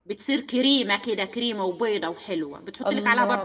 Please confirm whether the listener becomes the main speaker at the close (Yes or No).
Yes